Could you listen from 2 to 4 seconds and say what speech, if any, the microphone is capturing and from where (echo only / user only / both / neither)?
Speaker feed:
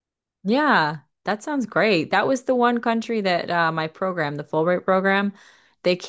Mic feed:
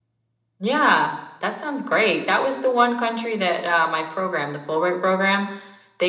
echo only